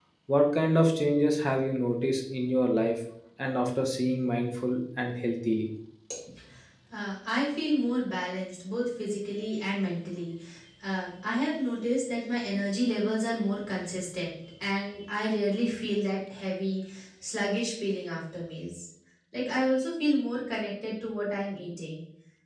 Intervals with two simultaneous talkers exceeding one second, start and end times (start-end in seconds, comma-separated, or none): none